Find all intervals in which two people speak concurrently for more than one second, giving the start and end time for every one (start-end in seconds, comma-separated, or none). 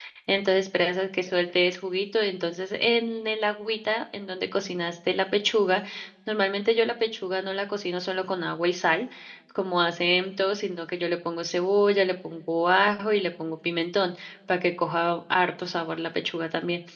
none